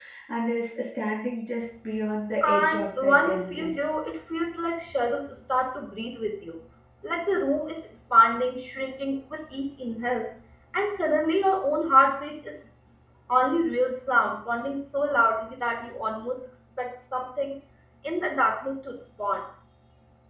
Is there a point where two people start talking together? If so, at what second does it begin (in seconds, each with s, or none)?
2.4 s